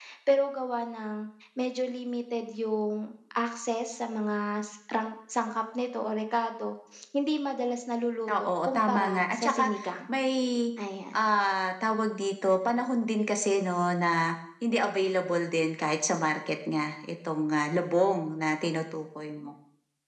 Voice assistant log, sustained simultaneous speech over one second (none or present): present